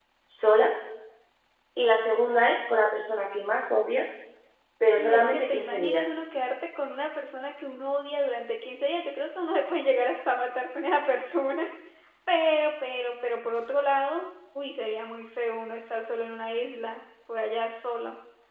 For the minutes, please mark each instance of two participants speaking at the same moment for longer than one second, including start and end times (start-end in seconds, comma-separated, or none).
5.0-6.2